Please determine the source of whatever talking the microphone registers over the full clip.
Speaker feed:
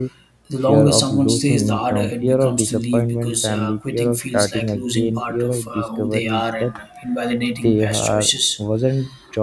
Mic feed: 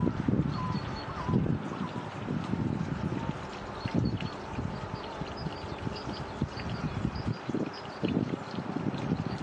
neither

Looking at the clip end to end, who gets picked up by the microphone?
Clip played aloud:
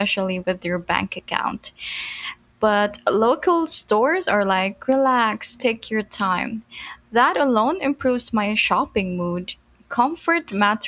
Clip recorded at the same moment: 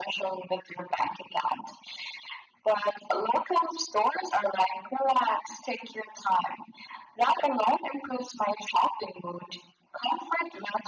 echo only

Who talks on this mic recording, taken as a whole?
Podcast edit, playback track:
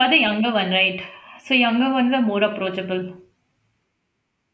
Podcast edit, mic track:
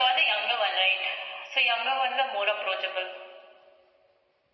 echo only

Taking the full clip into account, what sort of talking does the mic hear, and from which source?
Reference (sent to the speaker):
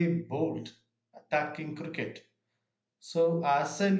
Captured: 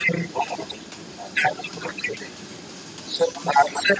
echo only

